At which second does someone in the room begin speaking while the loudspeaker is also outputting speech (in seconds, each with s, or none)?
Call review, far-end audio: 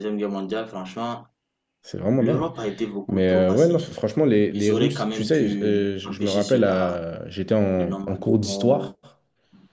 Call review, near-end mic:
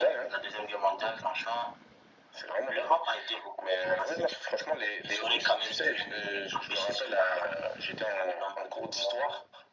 none